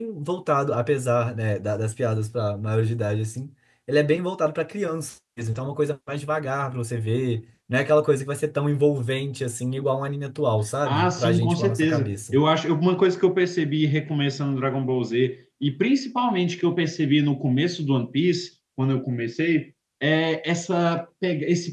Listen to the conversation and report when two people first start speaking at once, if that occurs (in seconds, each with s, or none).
10.8 s